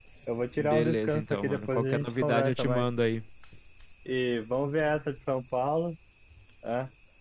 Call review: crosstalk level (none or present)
present